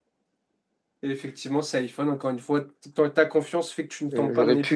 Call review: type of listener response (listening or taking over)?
taking over